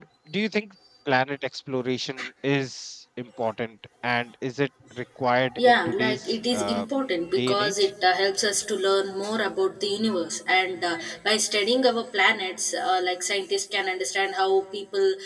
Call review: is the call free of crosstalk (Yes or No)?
No